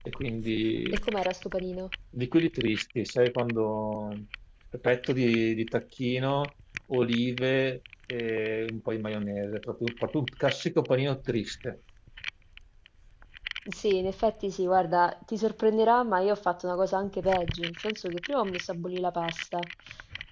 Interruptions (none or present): none